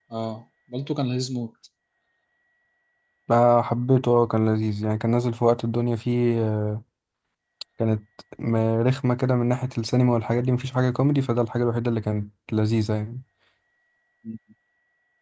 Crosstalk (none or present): none